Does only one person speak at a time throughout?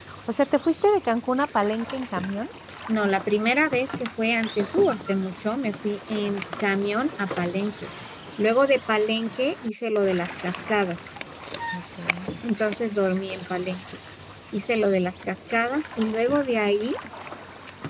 Yes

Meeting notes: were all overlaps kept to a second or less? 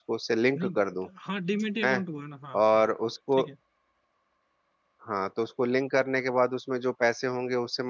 Yes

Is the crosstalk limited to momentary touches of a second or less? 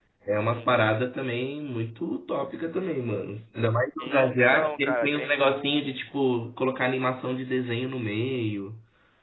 No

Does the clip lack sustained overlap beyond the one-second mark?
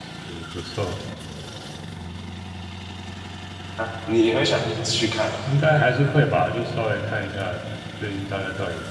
Yes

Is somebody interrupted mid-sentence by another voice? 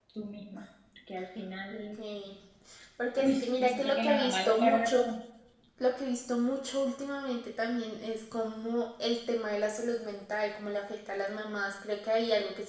Yes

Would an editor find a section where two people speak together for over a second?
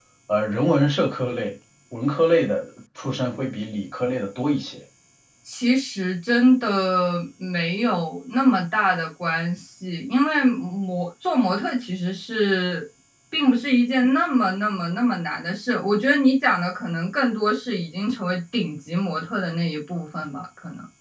No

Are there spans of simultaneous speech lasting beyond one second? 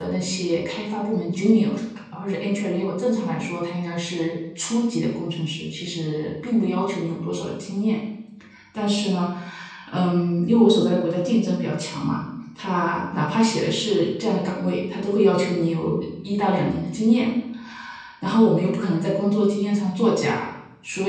No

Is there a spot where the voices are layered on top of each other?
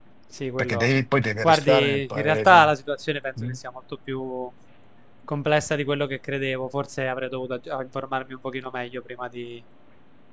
Yes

